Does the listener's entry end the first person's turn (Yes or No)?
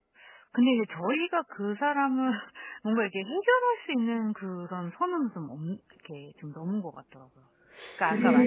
Yes